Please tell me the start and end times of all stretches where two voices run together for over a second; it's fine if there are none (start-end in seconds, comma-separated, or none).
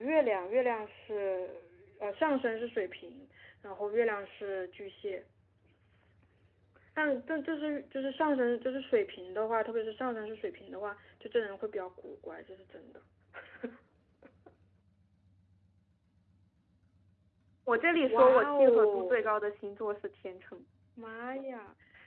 18.1-19.4